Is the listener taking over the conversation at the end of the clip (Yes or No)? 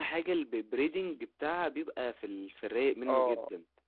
Yes